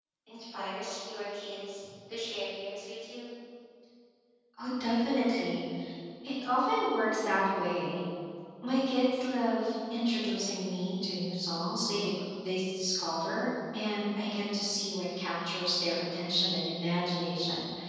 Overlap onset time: none

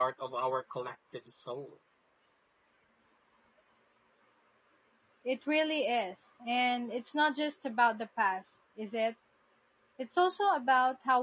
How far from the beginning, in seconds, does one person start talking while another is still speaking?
none

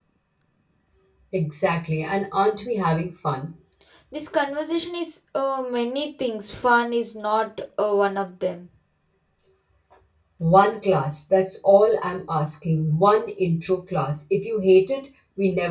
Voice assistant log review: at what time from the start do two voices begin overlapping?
none

